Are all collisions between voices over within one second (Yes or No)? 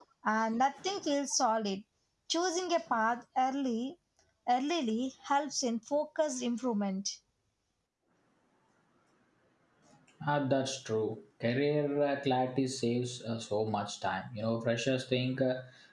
Yes